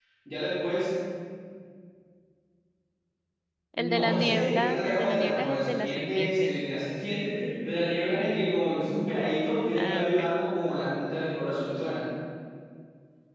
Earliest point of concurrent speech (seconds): 4 s

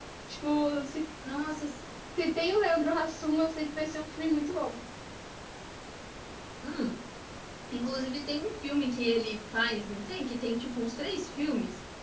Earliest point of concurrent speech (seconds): none

